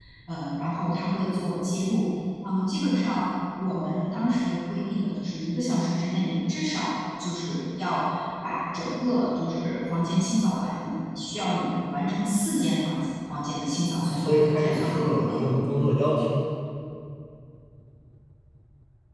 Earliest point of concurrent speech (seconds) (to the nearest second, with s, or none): 14 s